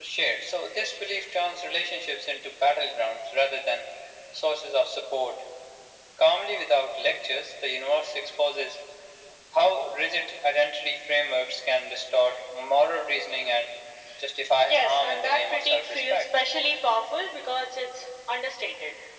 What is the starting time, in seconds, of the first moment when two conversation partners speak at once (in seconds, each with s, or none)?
14.7 s